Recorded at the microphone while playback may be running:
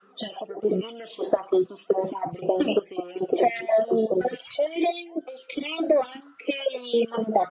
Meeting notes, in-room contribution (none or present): none